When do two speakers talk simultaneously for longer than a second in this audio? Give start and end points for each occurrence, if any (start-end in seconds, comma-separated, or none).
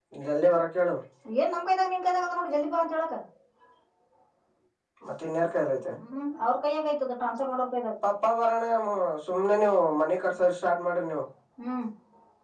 none